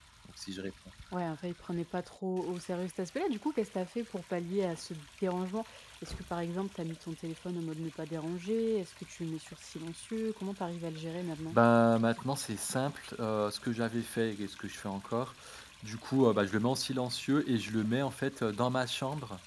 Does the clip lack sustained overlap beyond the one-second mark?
Yes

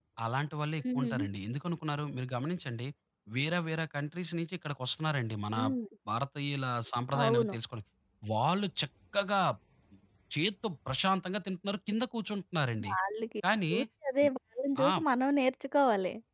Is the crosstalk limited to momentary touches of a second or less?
Yes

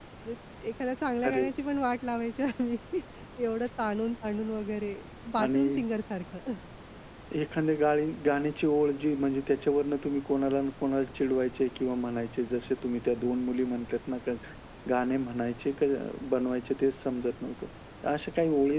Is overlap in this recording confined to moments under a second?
Yes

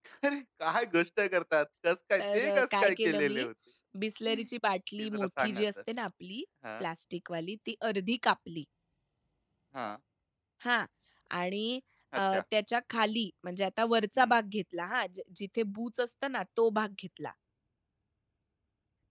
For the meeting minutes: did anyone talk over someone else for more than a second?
Yes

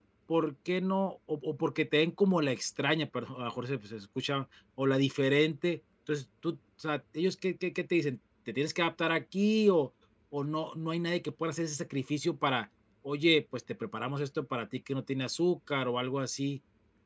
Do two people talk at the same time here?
No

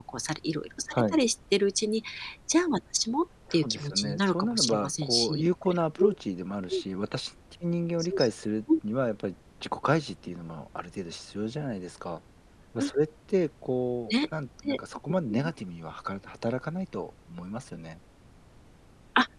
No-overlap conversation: No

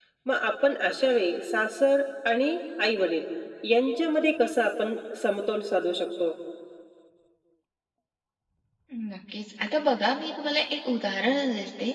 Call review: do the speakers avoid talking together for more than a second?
Yes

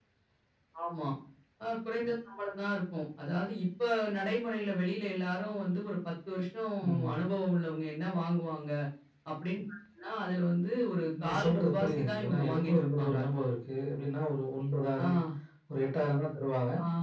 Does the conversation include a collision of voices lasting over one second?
Yes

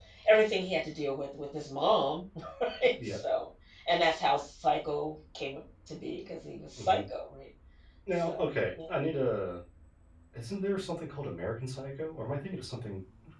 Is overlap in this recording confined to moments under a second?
Yes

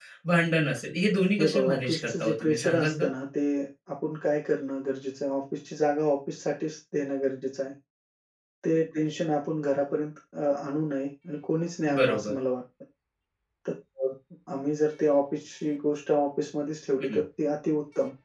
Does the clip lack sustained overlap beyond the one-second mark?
No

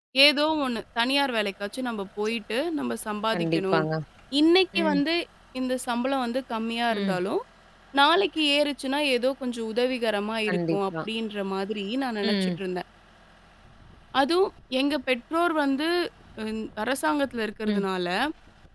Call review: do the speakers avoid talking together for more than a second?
Yes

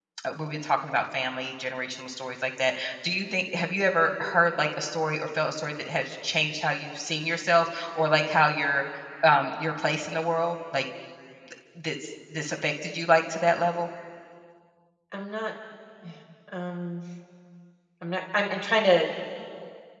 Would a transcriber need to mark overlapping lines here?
No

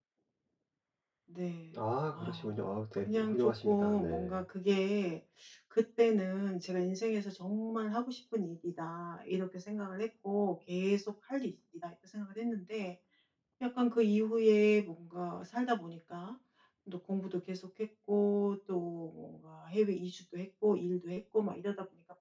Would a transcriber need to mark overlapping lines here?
Yes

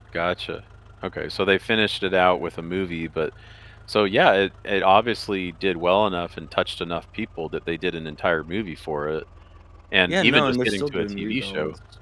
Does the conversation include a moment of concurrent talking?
Yes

